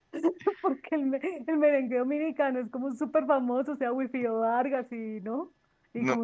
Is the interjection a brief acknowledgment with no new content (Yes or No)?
No